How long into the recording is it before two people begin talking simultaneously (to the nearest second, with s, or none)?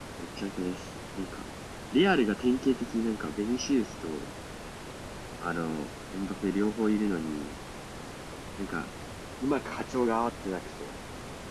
none